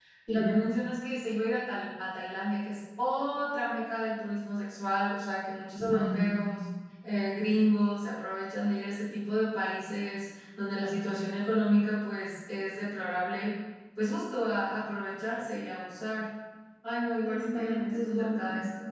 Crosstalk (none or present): present